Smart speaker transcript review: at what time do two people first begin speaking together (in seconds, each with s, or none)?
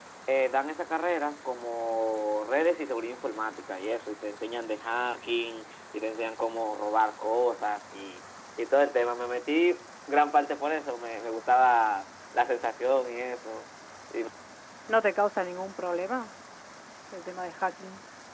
none